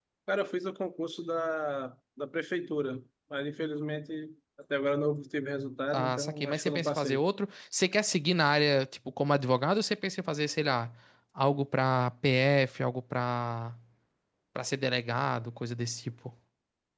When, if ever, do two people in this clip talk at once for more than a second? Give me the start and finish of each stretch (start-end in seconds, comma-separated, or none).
5.9-7.2